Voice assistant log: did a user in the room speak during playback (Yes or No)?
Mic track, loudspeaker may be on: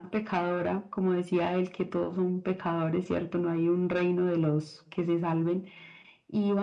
No